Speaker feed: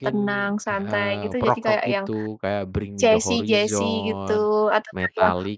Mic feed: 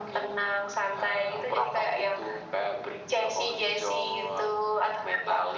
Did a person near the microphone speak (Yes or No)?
No